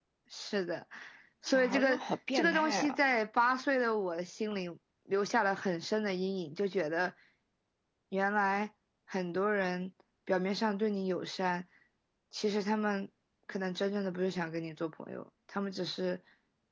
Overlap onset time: 1.5 s

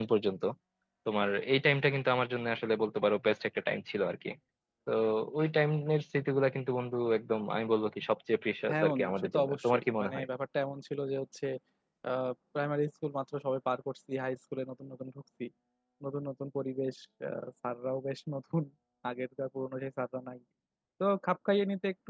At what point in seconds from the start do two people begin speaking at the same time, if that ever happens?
8.7 s

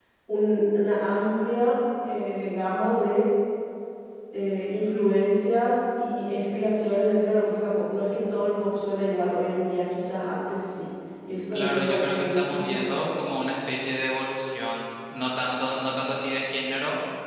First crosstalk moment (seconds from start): 11.4 s

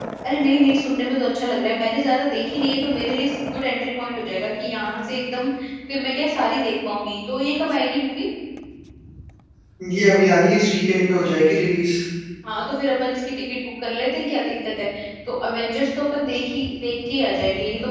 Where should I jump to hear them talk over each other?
none

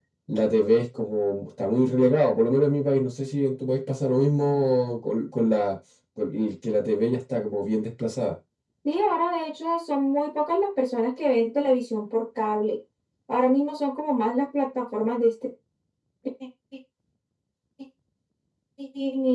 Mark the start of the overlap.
none

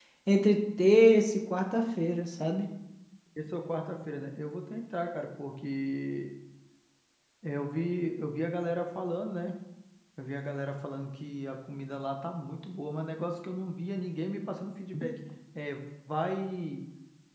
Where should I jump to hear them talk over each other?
none

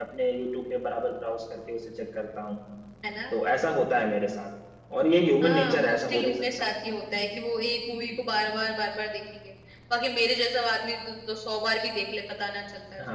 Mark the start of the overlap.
5.4 s

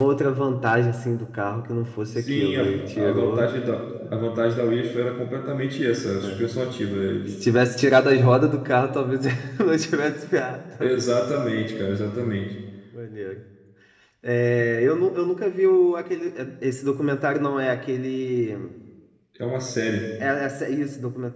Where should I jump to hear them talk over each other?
2.2 s

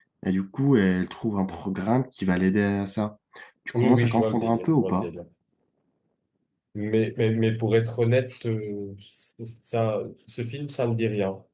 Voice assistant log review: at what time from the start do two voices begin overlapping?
3.7 s

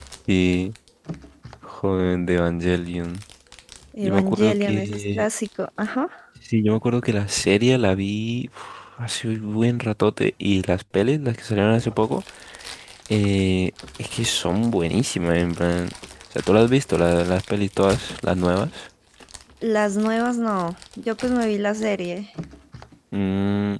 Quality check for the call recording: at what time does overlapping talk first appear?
4.0 s

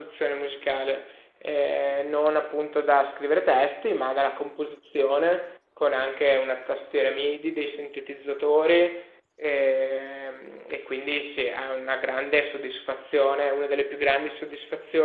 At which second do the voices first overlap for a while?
none

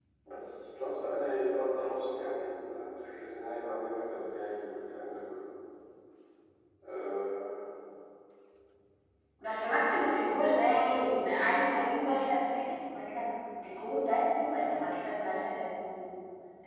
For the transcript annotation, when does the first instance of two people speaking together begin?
none

